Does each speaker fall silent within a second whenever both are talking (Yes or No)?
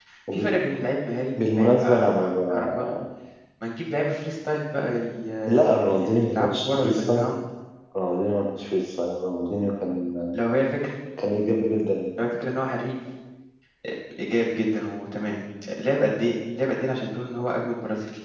No